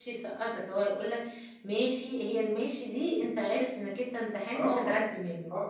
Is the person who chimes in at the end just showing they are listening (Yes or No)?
No